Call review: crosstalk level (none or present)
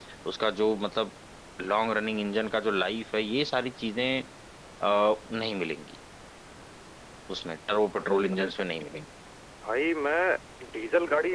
none